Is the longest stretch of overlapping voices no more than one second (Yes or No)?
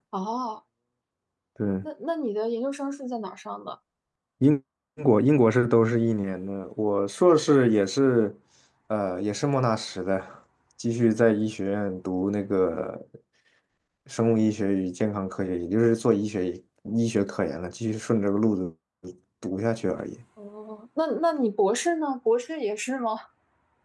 Yes